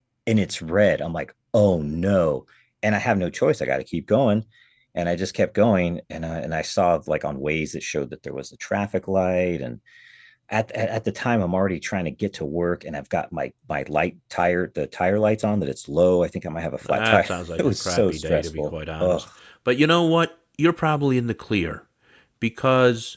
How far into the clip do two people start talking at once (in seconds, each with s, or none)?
16.8 s